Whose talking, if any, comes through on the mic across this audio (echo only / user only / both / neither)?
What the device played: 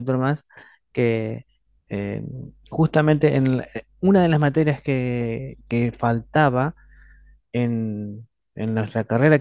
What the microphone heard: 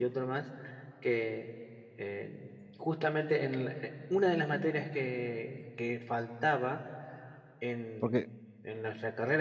both